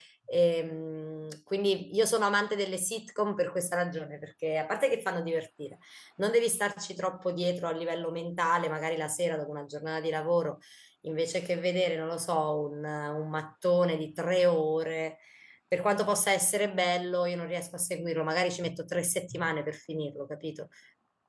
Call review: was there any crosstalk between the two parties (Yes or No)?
No